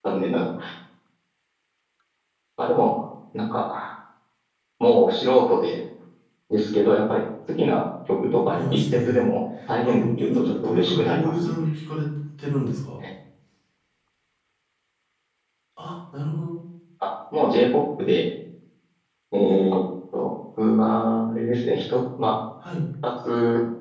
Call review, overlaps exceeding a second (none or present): present